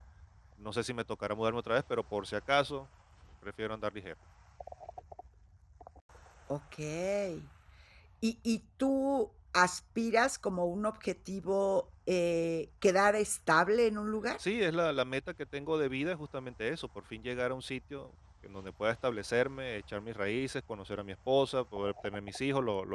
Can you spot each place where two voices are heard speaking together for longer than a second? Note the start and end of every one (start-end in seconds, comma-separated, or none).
none